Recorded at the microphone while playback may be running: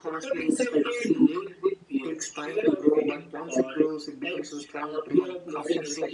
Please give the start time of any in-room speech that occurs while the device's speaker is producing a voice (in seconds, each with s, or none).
none